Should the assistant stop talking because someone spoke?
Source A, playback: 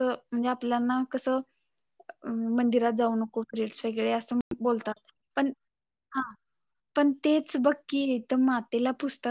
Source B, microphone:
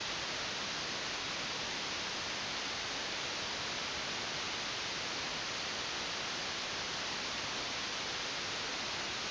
No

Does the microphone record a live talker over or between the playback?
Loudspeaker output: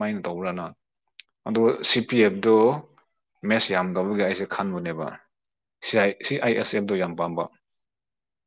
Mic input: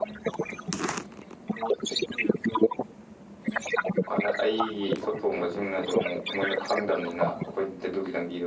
Yes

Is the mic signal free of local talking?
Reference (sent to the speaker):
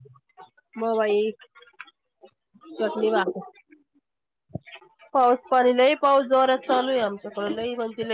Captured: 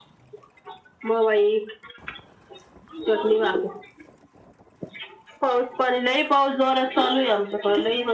Yes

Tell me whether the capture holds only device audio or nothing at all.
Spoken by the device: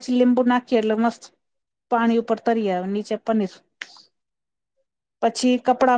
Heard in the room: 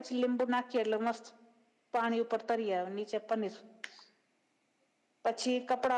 Yes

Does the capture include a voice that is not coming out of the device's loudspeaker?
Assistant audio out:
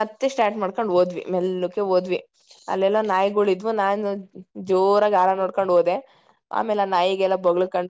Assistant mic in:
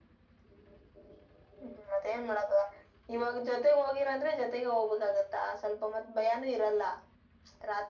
Yes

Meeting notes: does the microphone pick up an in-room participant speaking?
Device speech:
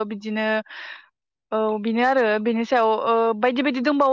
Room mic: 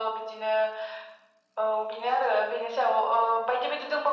No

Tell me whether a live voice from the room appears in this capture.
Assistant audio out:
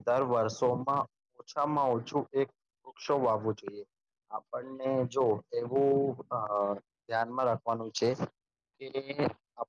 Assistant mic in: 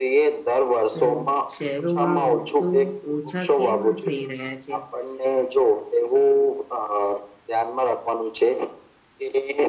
Yes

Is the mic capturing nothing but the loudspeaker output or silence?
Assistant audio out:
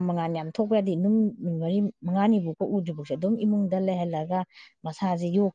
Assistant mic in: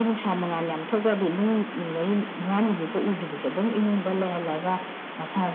Yes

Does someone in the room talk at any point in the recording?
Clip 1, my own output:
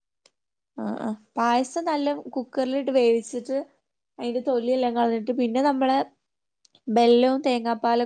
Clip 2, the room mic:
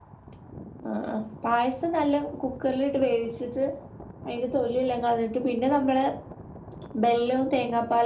No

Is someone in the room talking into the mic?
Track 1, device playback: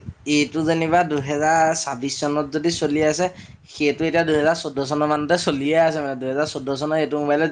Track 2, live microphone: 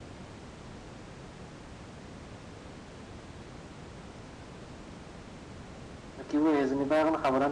Yes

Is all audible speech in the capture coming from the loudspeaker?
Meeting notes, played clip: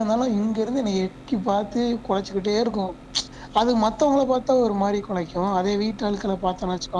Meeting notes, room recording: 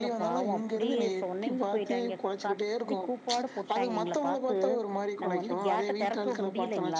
No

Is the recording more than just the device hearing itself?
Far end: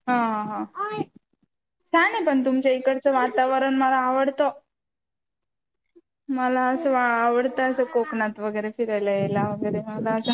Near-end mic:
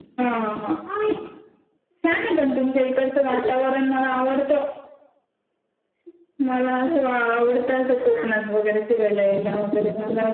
No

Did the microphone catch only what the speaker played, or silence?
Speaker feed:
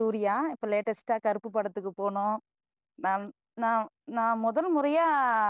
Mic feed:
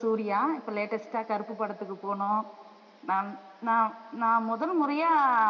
Yes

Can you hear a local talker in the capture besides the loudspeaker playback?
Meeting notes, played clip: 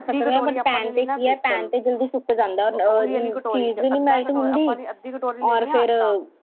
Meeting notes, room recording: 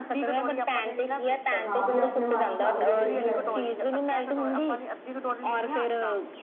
Yes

